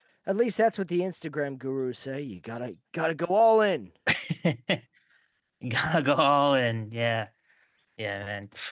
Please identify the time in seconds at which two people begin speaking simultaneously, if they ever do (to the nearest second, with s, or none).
none